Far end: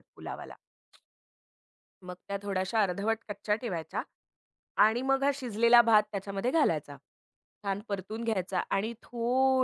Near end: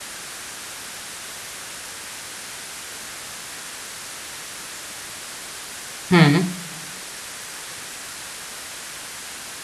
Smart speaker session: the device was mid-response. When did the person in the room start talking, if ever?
6 s

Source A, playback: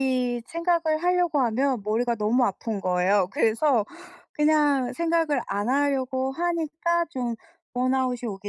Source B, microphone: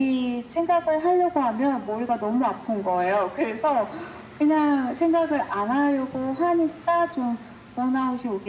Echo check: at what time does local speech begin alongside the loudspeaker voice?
none

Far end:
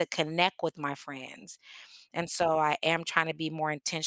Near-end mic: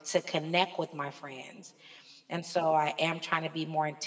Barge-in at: none

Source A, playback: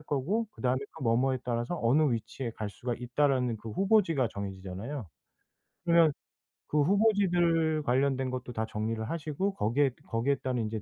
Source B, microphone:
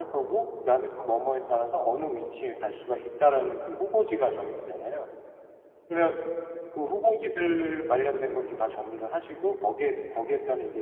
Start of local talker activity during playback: none

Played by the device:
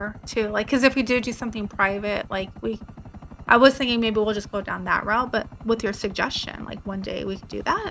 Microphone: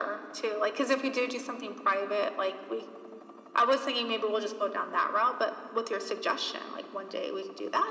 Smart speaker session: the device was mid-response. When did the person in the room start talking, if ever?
none

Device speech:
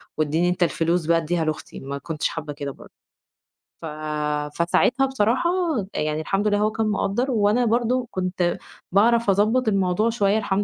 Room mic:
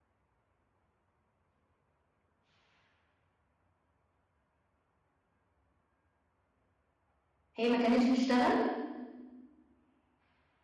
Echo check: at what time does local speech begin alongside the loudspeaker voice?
8 s

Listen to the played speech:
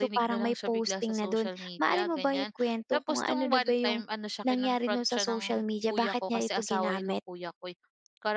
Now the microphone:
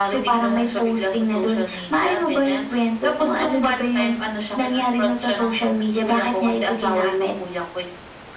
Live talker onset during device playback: none

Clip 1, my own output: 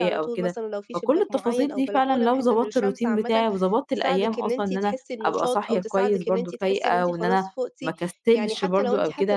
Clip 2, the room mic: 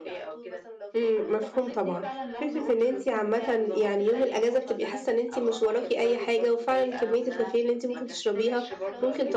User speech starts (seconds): 1 s

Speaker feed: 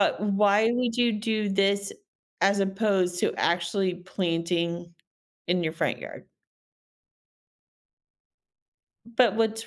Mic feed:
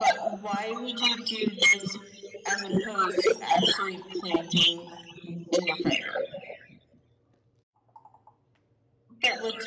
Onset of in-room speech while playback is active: none

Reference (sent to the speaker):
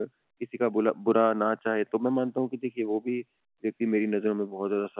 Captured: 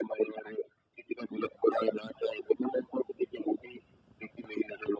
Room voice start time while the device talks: none

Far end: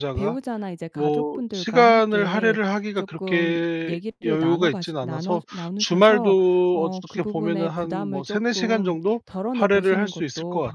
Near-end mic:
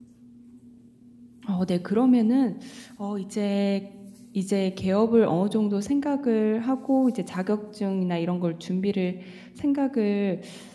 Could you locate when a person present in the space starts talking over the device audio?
1 s

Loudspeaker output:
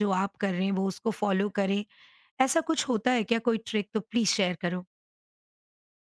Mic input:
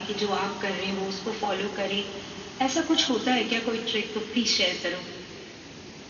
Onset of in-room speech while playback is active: none

